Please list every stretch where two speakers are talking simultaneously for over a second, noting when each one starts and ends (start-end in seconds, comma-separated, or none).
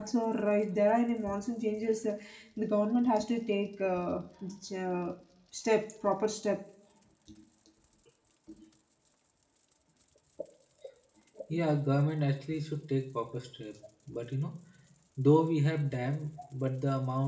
none